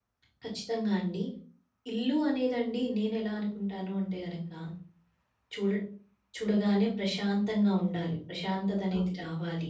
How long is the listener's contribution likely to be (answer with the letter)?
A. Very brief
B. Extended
A